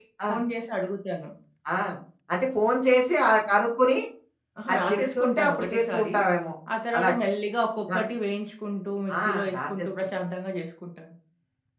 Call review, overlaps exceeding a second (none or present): present